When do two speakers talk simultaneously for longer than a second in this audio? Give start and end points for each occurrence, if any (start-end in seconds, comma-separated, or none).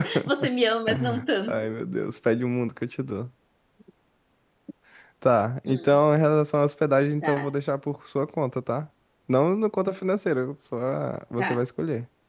none